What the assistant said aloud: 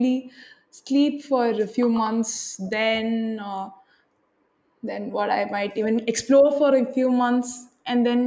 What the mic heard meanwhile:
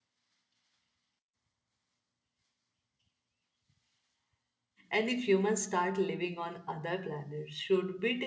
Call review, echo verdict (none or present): none